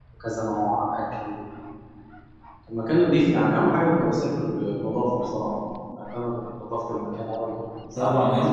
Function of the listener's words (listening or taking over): taking over